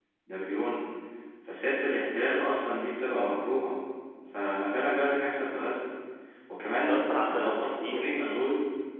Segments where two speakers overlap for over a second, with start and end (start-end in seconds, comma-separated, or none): 6.6-8.1